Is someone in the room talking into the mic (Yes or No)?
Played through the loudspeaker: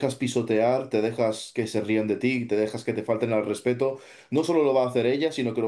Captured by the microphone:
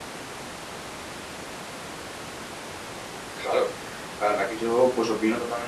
Yes